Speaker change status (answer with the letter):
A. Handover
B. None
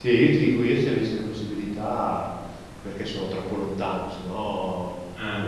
B